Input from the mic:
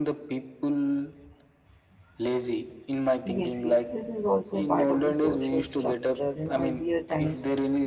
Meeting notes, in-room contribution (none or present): present